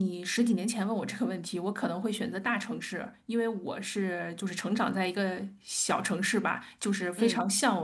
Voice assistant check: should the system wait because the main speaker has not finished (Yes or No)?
Yes